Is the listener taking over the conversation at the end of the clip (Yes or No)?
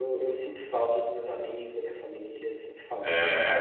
Yes